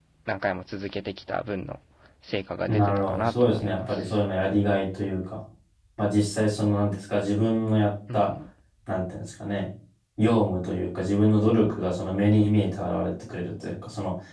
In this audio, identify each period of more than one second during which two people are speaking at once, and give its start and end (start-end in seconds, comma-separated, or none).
2.7-4.2